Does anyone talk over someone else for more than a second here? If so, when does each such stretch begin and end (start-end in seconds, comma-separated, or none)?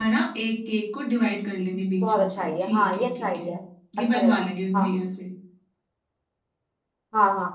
2.0-3.5